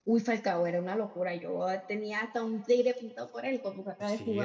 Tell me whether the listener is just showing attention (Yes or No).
No